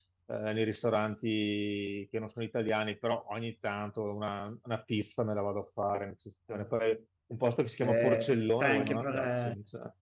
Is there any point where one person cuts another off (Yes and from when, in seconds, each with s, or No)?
Yes, from 7.8 s